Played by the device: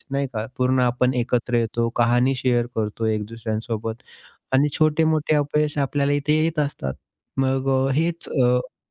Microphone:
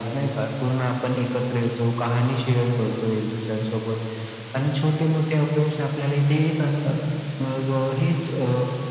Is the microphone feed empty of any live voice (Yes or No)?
Yes